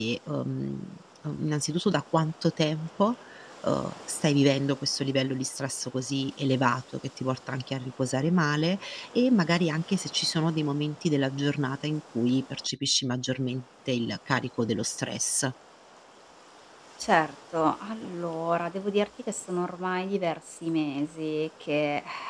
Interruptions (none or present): none